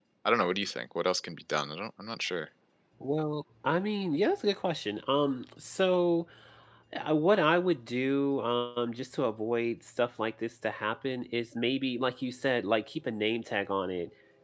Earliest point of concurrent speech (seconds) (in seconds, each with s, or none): none